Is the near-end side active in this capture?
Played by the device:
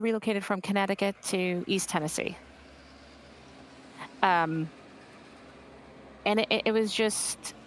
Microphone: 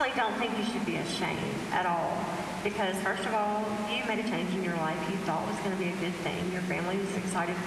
Yes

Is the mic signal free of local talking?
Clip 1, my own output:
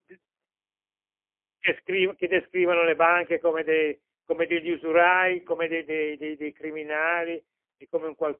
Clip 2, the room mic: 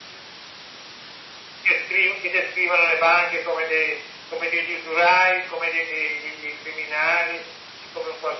Yes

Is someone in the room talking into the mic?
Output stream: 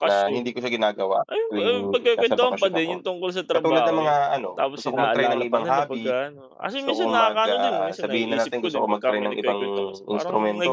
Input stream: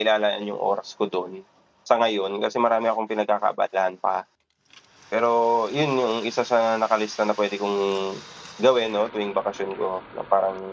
Yes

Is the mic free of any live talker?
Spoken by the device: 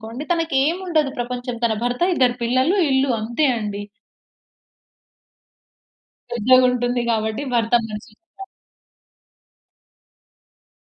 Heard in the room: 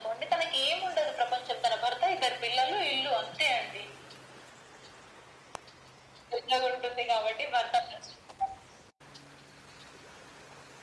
Yes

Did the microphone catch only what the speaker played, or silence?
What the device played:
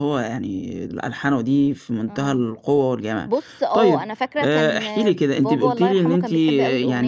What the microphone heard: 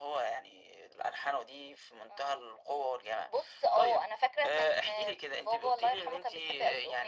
Yes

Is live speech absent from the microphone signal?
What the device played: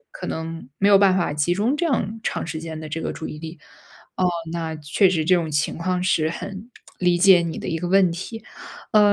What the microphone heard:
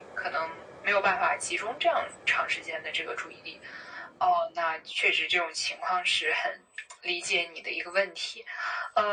Yes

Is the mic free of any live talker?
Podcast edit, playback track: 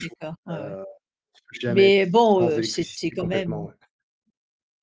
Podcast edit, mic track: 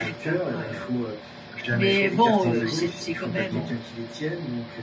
No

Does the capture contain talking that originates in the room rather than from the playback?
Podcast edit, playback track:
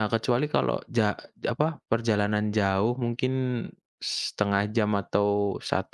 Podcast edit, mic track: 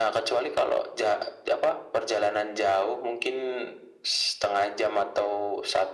No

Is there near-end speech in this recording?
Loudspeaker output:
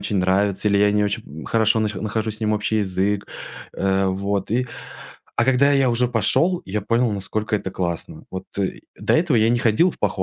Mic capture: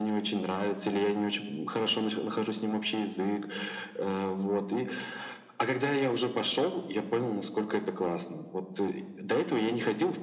No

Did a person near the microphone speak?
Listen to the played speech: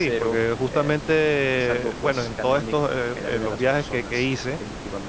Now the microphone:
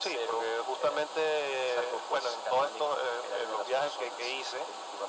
No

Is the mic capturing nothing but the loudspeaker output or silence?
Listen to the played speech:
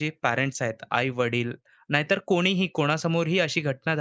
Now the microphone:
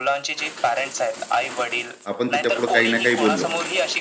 No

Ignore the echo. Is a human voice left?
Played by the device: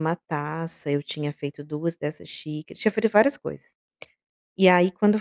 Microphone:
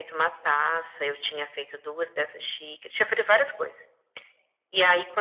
No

